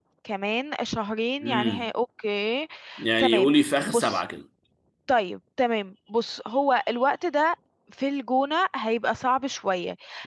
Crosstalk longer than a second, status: none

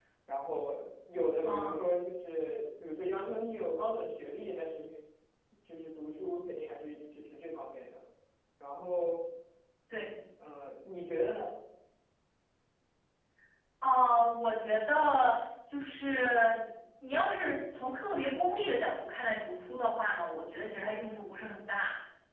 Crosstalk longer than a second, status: none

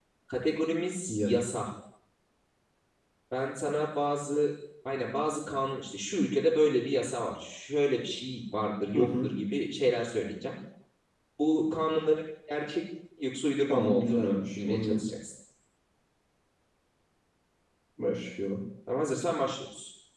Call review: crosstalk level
present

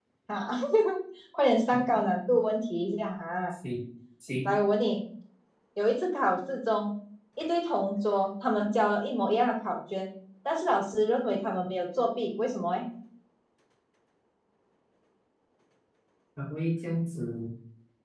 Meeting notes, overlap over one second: none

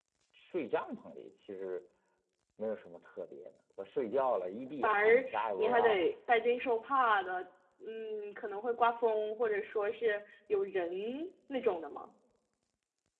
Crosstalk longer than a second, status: present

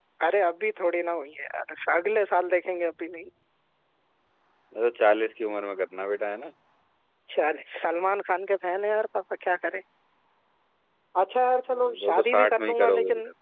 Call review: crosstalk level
present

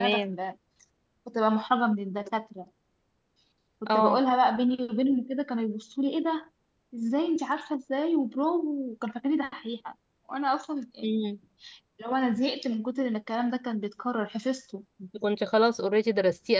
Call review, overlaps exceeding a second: none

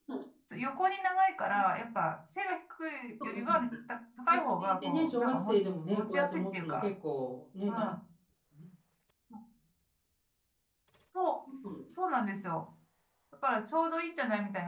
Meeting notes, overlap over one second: present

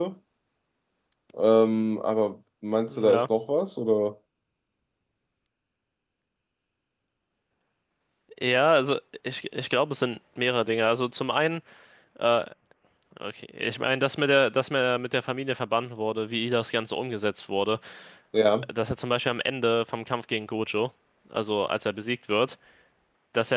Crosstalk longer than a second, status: none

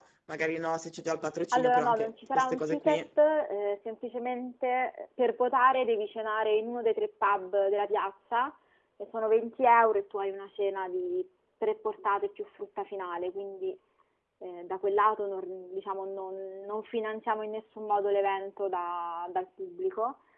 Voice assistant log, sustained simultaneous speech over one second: present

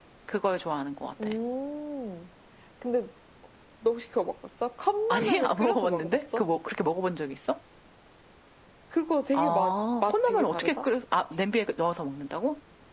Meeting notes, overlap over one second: present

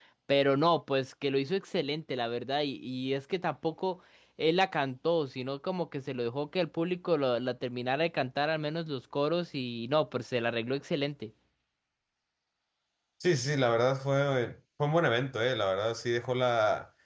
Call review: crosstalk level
none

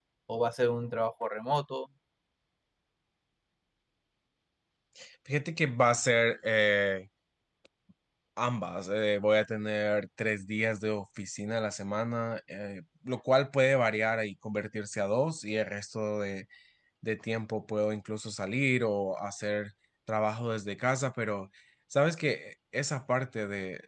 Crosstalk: none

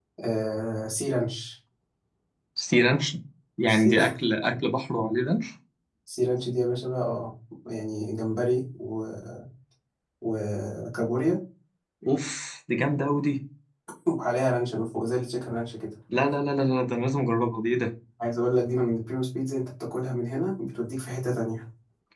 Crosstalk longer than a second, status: none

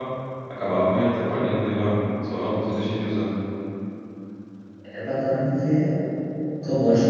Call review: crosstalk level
none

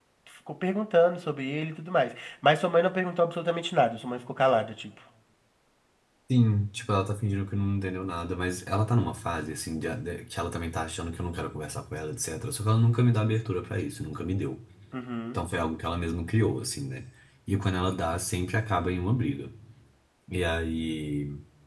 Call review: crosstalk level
none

